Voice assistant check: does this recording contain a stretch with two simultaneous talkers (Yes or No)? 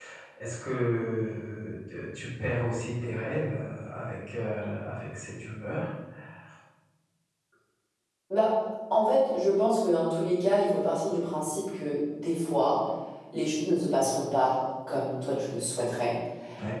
No